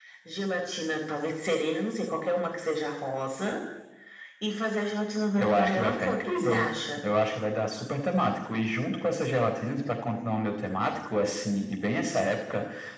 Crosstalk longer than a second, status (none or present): present